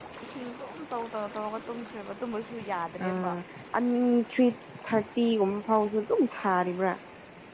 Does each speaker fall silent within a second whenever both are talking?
Yes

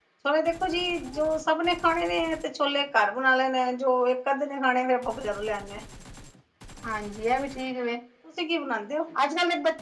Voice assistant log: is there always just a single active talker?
Yes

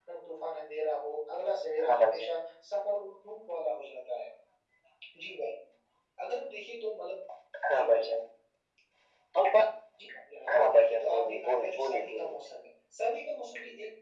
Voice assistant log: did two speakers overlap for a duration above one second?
Yes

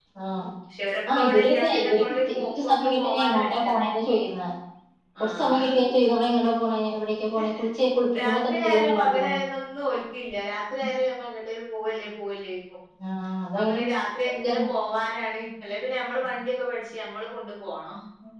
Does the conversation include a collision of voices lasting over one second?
Yes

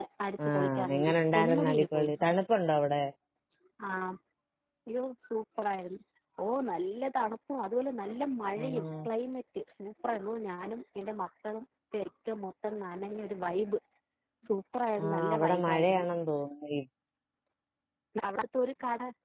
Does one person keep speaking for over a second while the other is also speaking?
Yes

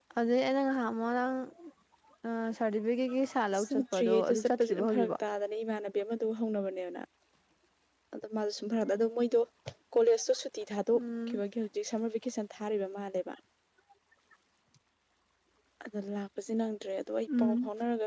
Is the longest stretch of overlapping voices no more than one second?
No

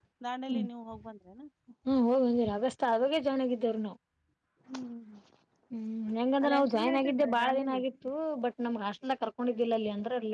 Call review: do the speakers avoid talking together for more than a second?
No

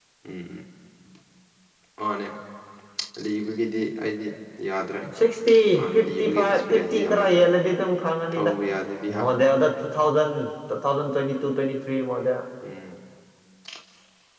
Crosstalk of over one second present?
Yes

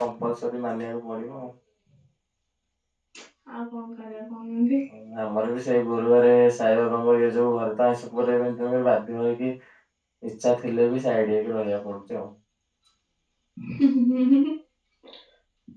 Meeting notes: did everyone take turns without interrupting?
Yes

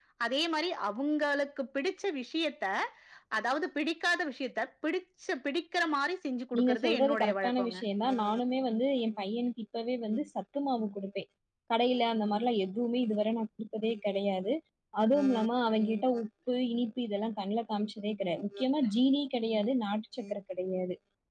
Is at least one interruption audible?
Yes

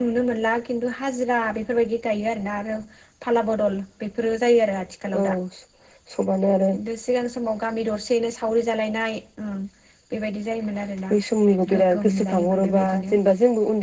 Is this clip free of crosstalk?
No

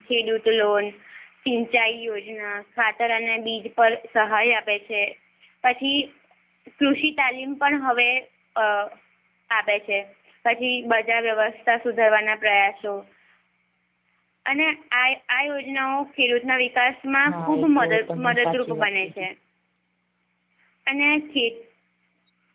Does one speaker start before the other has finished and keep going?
Yes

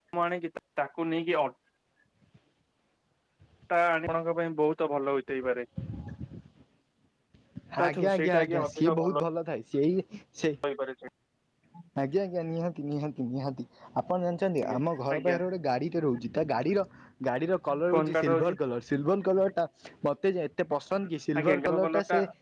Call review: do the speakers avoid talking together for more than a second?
No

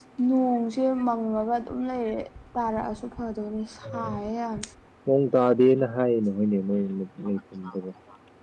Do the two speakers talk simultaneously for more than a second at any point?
No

